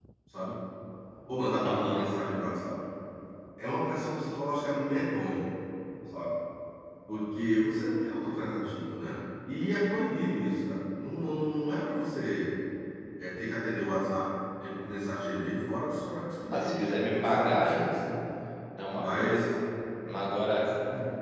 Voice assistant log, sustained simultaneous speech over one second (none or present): present